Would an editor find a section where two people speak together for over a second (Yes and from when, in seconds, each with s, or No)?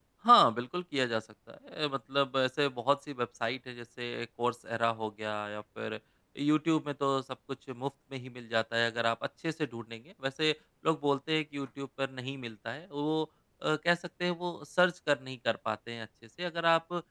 No